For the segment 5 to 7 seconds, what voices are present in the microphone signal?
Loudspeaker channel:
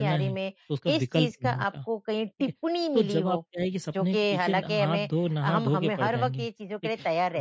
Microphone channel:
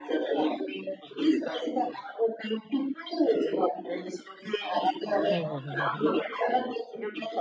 both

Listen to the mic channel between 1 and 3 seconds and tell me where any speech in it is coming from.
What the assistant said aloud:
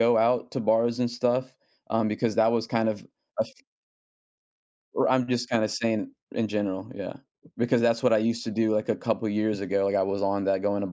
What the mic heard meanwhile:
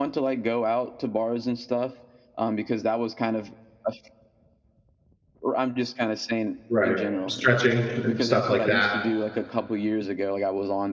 echo only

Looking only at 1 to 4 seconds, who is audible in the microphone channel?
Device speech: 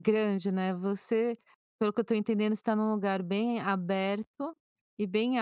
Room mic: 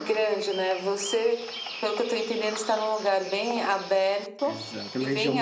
echo only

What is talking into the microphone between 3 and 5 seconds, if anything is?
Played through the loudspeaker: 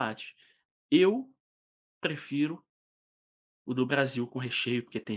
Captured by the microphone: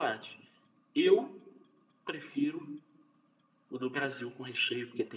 echo only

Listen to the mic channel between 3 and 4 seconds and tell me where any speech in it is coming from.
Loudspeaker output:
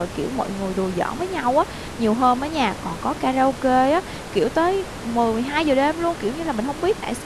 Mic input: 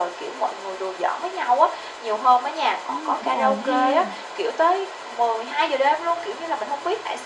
both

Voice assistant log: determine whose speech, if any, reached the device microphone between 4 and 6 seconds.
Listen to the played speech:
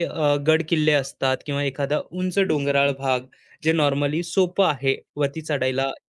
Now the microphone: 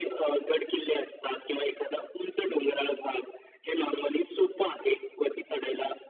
echo only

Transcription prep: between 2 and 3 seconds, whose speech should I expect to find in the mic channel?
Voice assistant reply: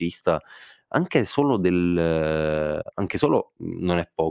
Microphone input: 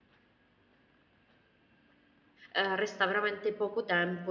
user only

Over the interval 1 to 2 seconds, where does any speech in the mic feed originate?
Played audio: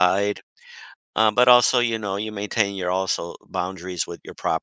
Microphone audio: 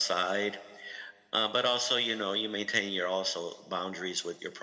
echo only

